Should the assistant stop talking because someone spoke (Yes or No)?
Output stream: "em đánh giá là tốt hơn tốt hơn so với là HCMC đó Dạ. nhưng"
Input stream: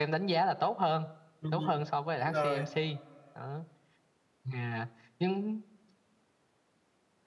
Yes